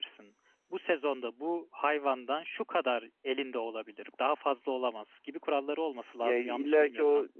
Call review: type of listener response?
taking over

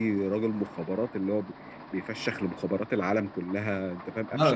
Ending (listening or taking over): taking over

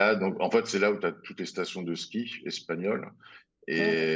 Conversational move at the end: listening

